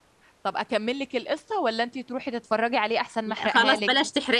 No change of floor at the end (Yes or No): No